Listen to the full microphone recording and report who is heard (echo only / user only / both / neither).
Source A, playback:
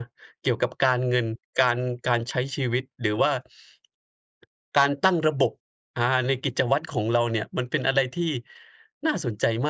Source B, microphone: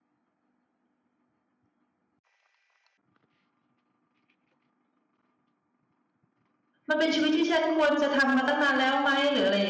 user only